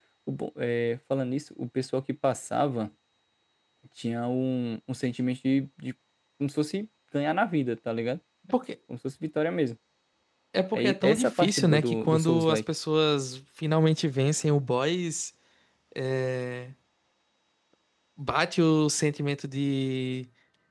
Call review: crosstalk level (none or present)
present